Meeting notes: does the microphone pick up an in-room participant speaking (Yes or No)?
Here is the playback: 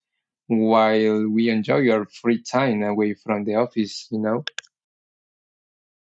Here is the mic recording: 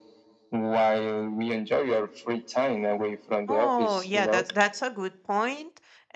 Yes